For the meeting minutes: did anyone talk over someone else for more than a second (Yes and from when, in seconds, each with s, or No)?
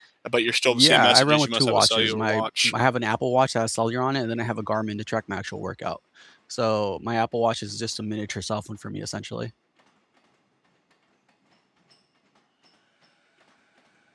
Yes, from 0.7 s